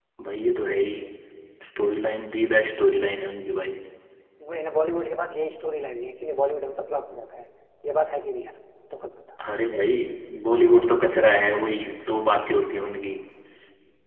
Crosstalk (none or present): none